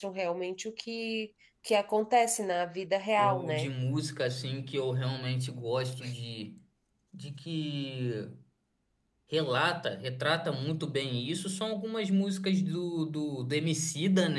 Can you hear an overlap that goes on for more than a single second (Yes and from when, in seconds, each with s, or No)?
No